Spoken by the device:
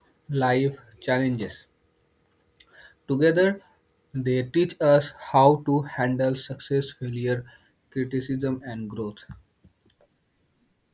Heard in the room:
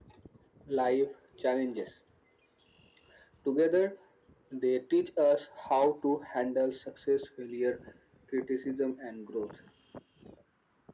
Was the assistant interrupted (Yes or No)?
No